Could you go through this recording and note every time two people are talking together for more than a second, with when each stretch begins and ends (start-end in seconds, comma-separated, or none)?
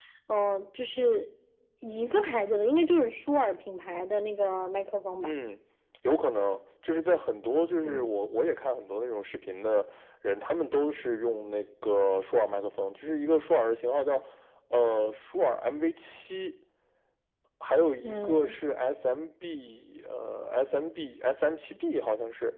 none